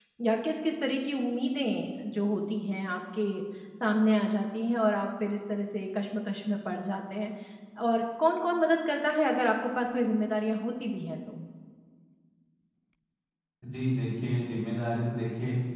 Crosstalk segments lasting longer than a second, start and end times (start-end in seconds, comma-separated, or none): none